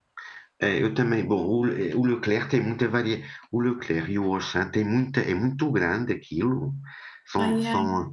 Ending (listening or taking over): listening